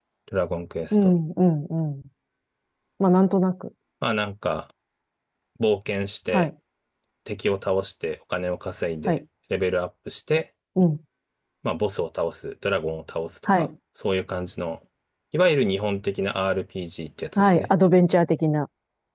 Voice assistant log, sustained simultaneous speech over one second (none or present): none